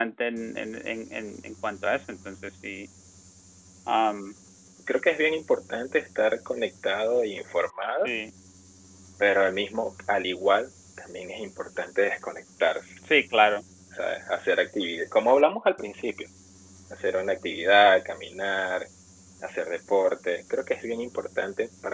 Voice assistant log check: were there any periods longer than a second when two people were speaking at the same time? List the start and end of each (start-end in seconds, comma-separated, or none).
none